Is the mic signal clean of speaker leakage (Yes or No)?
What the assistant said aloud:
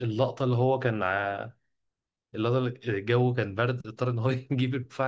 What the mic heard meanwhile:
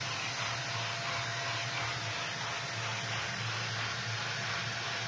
Yes